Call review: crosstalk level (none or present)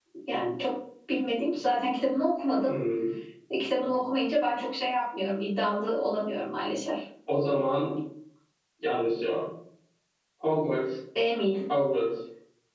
none